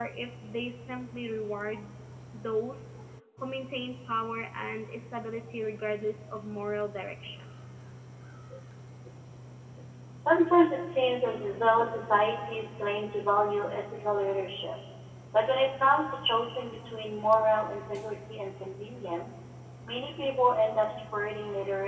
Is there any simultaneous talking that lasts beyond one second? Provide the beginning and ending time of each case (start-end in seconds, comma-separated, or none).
none